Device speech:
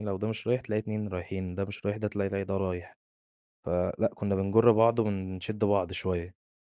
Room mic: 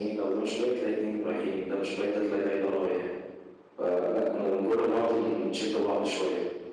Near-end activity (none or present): none